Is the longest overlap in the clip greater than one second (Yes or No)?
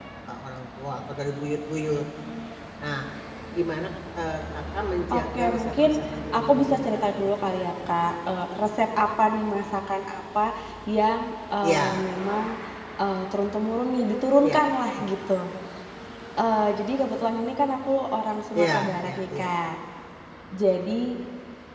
Yes